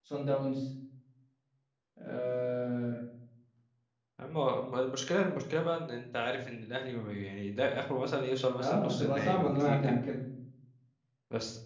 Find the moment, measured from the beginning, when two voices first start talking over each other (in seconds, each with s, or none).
8.6 s